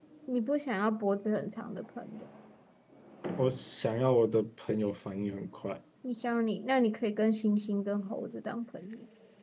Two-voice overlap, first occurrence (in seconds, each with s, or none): none